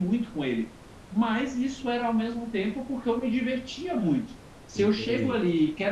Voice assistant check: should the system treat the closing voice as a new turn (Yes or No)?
No